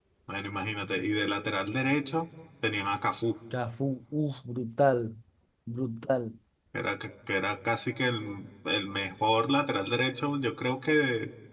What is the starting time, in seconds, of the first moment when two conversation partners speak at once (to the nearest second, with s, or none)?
none